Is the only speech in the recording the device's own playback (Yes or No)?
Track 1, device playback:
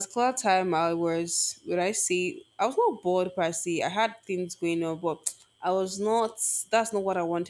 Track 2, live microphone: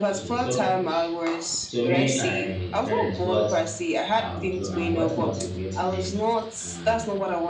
No